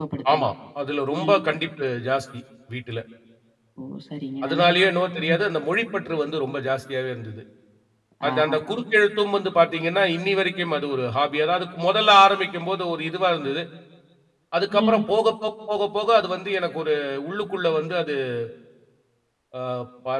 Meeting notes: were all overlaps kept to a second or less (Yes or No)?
Yes